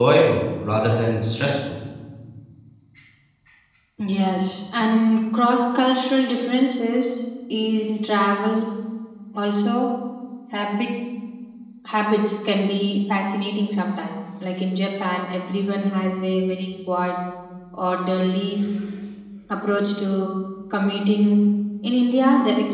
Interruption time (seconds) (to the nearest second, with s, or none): none